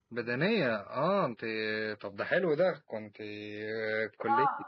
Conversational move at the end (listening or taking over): taking over